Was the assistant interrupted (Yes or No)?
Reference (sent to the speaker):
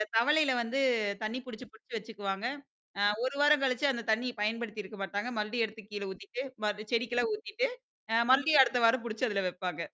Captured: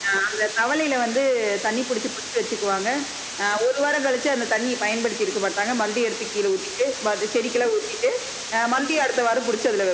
No